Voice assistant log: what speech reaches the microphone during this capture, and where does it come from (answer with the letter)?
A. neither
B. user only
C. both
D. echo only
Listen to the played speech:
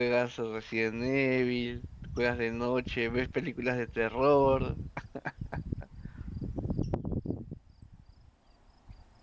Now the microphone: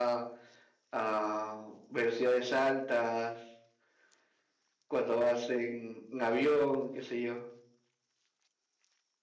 B